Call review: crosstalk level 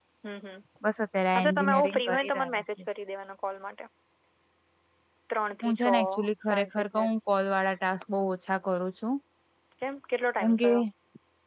present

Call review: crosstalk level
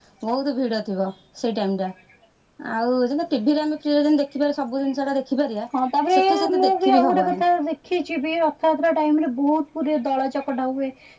present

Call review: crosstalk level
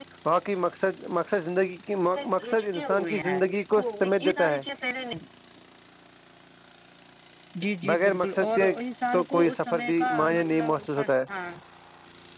present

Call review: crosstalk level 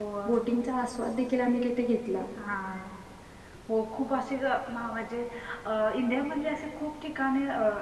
none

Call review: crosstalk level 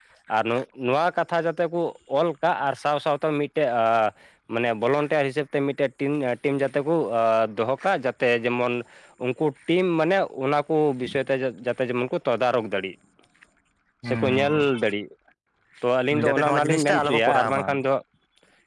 present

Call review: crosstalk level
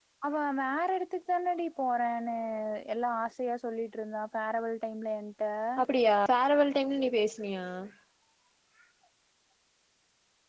none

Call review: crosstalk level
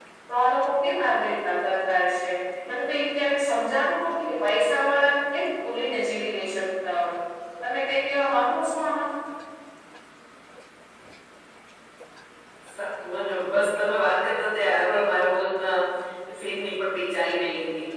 none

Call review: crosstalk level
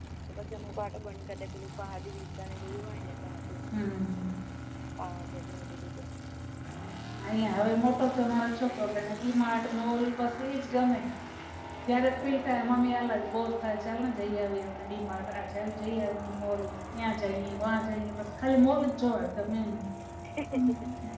none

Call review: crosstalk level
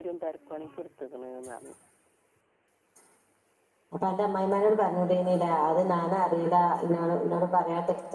none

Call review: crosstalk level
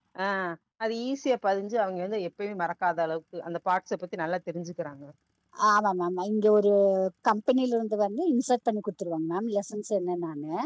none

